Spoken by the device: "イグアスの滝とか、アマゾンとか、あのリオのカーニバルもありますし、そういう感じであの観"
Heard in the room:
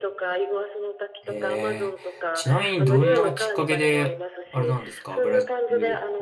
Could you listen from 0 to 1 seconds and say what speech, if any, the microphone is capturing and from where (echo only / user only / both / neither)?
echo only